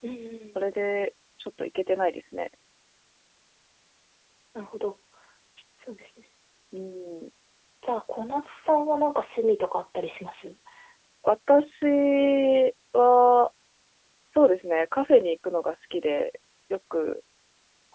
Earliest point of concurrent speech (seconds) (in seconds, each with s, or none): none